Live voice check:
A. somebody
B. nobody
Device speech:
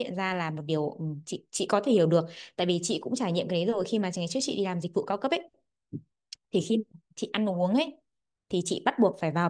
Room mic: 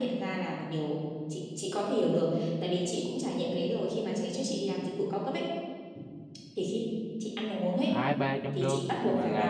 A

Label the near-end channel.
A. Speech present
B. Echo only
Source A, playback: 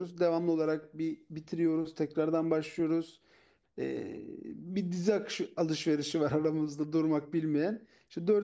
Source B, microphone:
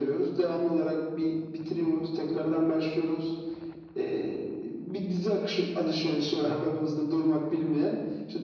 B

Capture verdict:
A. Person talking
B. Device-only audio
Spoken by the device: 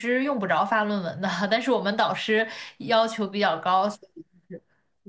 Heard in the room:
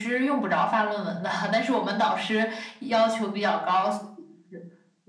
B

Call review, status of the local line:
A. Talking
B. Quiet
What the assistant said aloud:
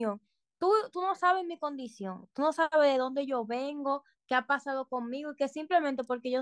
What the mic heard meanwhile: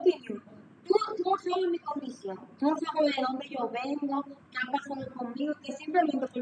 B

